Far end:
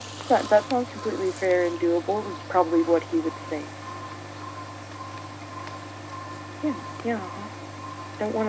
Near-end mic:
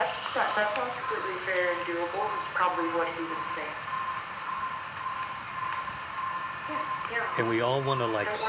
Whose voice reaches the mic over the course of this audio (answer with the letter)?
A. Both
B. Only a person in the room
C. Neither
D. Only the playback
A